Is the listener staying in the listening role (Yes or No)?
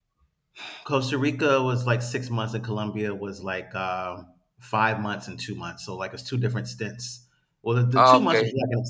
Yes